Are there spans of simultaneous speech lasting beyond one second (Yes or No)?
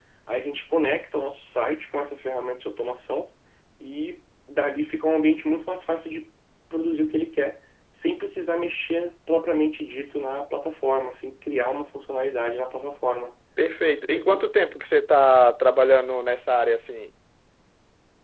No